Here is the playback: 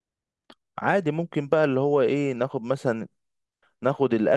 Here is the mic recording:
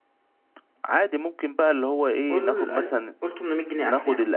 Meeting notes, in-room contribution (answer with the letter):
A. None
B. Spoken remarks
B